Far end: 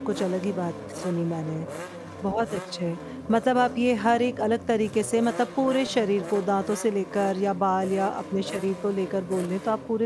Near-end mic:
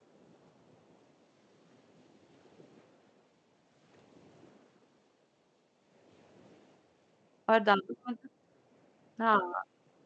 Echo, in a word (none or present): none